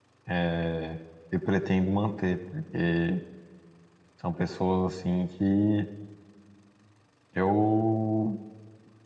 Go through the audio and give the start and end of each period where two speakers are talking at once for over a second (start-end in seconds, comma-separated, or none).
none